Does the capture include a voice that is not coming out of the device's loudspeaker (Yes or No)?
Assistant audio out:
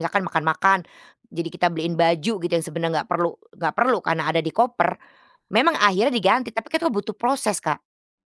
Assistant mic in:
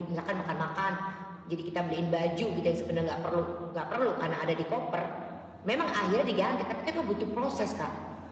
No